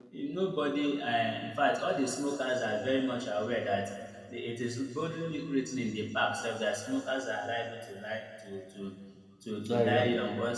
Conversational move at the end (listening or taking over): listening